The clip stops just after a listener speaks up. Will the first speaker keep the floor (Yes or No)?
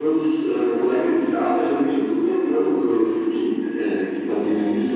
Yes